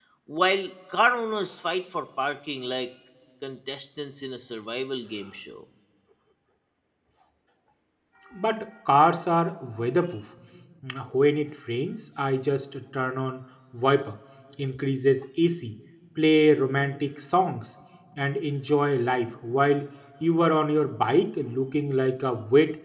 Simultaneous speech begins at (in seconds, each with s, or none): none